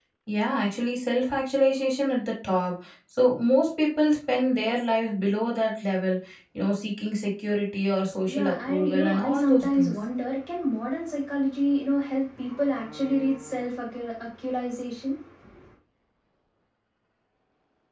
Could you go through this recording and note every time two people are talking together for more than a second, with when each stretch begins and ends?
8.3-9.9

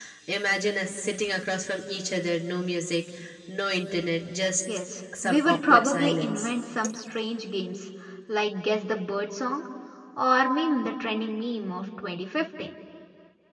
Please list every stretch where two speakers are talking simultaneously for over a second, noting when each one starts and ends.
5.2-6.5

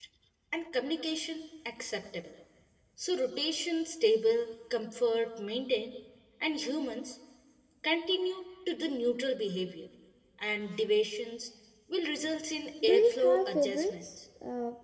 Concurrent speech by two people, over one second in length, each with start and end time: 12.8-14.1

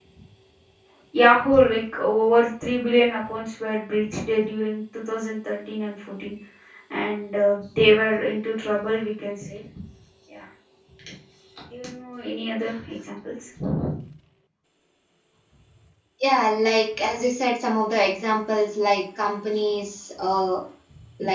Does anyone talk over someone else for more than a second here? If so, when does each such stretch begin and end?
none

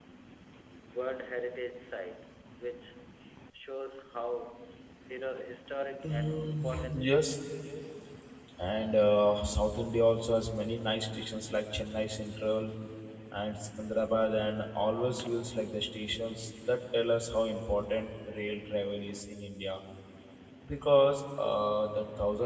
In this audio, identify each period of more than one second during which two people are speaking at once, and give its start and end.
6.0-7.4

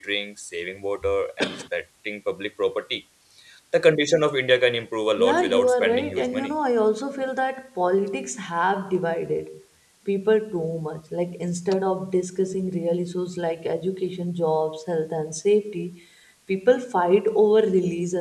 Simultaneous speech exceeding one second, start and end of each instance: 5.2-6.5

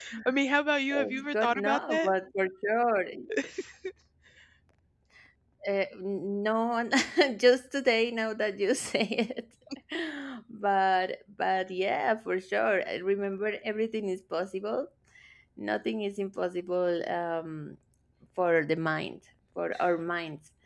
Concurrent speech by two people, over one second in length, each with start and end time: 0.9-2.1

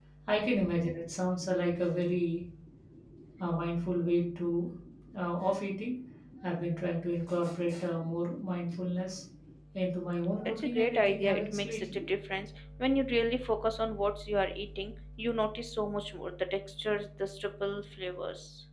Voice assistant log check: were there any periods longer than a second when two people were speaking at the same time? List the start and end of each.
10.4-12.0

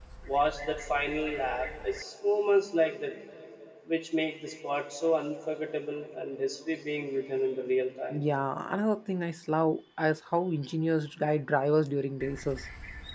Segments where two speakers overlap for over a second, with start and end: none

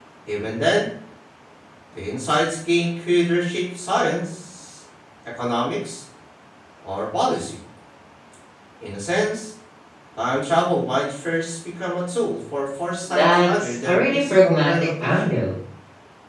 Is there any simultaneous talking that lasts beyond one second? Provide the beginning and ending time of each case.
13.1-15.4

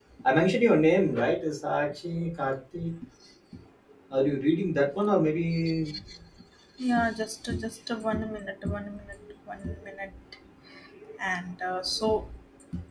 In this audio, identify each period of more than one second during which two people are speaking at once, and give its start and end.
none

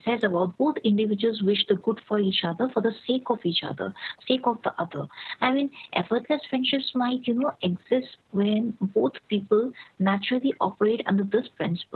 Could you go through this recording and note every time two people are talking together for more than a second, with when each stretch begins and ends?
none

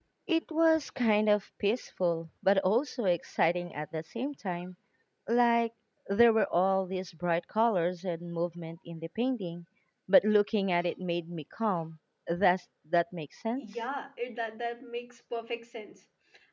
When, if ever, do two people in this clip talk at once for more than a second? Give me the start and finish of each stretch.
none

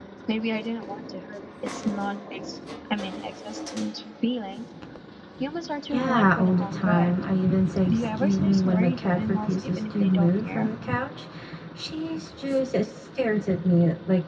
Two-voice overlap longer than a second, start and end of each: 5.9-7.1, 7.9-10.7

